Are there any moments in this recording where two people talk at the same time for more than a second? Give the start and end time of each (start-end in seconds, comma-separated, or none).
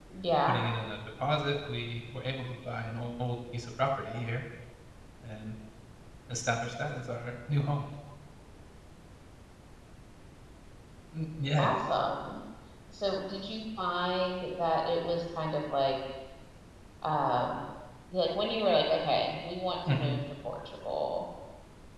none